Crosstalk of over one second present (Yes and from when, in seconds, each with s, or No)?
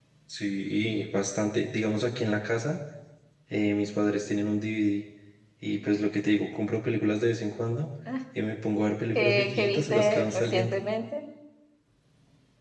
Yes, from 9.2 s